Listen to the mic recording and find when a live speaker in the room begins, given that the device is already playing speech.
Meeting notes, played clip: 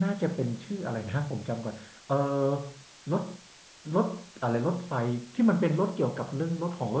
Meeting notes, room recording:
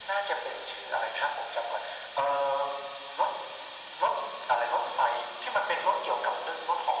none

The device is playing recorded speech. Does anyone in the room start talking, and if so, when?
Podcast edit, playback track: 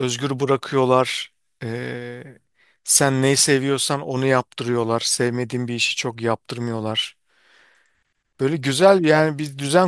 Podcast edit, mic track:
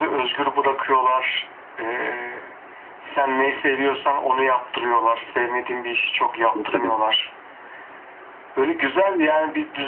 7 s

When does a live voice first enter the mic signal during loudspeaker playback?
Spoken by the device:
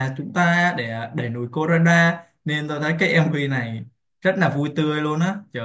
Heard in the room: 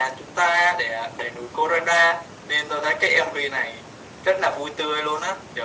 none

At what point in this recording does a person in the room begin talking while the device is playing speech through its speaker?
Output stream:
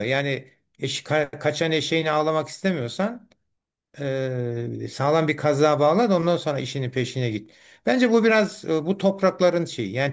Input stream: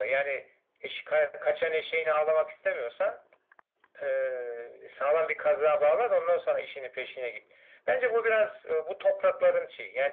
none

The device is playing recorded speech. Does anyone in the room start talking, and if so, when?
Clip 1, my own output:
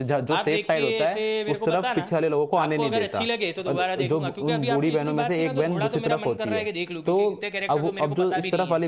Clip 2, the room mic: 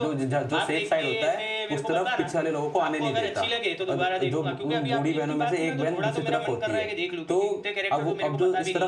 none

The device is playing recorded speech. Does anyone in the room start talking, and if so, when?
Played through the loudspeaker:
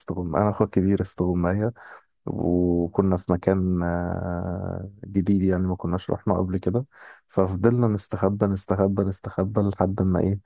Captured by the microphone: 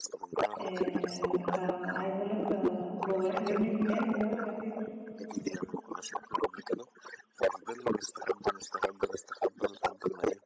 1 s

